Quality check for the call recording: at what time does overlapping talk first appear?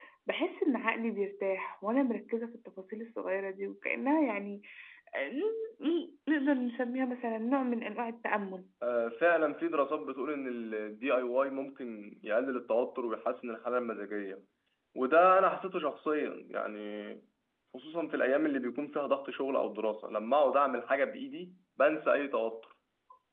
none

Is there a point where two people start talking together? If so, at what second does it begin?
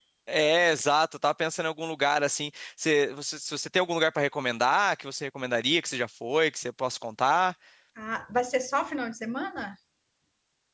none

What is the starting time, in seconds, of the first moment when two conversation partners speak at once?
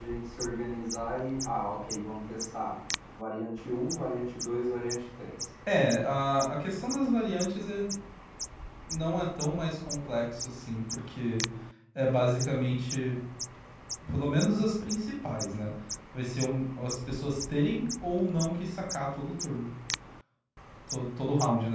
none

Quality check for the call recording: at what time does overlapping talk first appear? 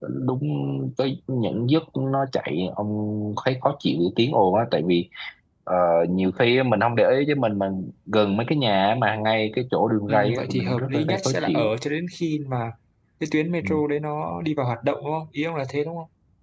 10 s

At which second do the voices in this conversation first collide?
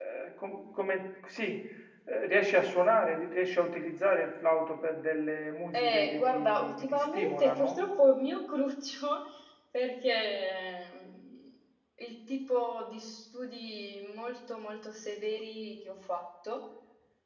6 s

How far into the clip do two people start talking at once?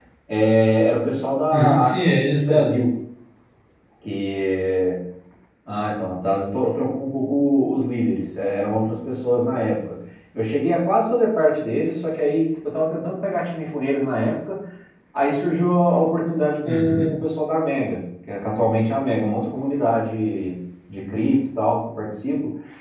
1 s

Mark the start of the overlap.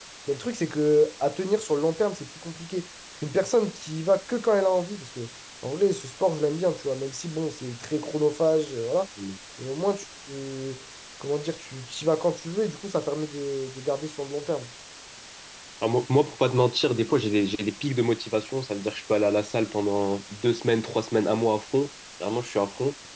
none

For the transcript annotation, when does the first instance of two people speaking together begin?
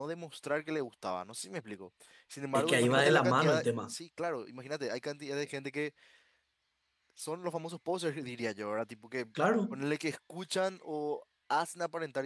3 s

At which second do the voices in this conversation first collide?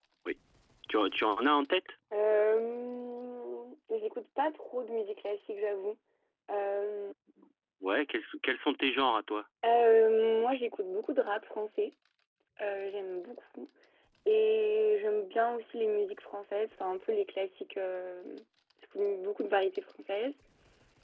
none

